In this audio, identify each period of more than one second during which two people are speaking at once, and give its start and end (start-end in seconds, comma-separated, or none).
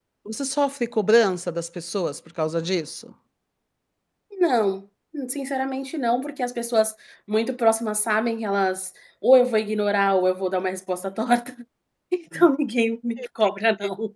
none